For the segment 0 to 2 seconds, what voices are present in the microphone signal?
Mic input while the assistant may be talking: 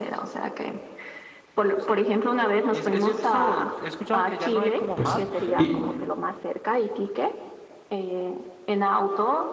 echo only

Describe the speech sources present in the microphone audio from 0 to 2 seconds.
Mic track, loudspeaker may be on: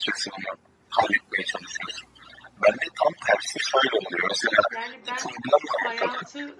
echo only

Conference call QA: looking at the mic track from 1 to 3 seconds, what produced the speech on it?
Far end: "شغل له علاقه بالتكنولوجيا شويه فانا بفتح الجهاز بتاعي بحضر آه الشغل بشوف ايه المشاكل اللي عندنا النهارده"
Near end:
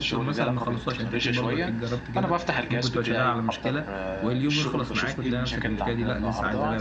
both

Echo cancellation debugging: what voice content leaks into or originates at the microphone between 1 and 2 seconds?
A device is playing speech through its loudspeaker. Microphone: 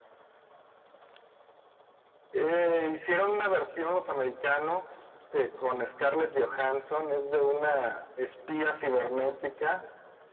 neither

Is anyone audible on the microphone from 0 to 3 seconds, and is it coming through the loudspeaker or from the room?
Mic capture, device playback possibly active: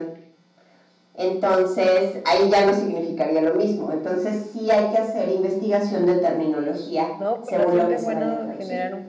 echo only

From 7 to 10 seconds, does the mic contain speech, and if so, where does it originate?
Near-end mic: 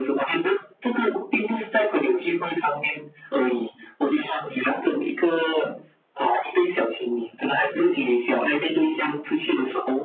echo only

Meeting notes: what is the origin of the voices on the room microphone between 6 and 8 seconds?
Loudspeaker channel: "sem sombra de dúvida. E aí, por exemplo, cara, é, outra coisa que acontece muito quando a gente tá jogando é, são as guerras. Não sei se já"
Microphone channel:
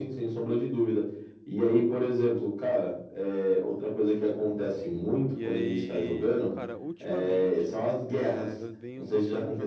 both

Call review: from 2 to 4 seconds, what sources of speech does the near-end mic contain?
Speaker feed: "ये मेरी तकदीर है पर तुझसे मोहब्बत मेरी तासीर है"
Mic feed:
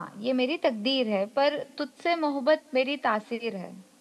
echo only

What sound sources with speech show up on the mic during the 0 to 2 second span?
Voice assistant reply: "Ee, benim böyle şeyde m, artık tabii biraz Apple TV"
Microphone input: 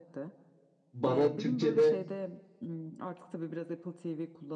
both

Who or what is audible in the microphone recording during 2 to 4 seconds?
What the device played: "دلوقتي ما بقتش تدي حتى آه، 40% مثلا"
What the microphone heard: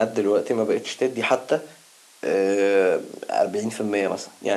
echo only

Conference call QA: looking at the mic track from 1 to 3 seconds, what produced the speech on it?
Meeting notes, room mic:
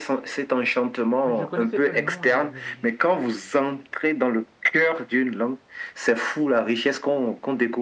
both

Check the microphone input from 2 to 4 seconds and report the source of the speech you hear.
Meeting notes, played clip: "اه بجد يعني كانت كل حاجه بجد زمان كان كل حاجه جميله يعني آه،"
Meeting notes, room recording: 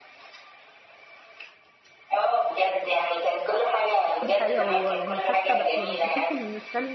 echo only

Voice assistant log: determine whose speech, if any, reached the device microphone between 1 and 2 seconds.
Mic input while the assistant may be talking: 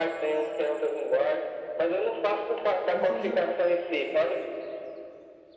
echo only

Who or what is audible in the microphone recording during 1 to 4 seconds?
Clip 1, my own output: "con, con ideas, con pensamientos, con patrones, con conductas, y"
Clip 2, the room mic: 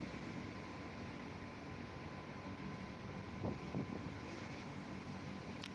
neither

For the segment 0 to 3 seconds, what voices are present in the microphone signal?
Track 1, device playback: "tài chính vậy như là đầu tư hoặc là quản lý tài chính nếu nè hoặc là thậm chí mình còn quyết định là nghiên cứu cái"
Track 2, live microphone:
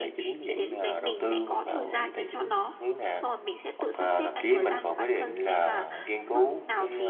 both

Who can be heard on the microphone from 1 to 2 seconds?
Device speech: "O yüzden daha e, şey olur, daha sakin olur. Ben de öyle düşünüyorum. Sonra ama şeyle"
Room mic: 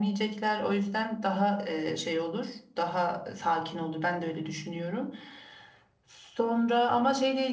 echo only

